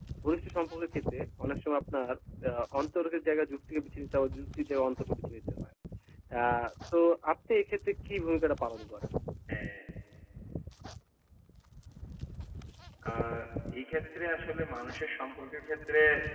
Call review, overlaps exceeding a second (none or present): none